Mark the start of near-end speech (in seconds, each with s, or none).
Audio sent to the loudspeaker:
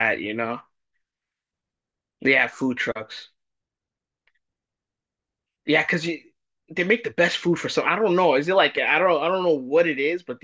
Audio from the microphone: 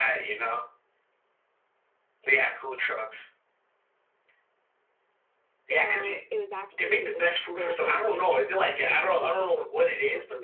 5.7 s